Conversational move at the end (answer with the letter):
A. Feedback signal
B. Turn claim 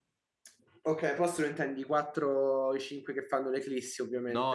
B